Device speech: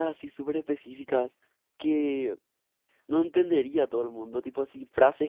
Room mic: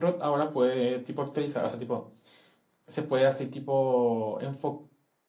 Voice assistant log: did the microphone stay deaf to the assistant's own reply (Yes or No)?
Yes